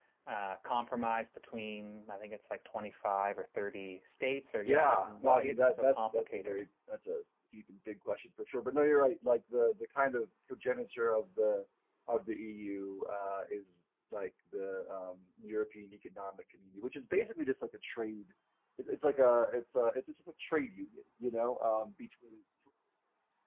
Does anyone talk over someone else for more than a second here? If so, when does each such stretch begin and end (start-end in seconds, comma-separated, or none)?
4.6-6.6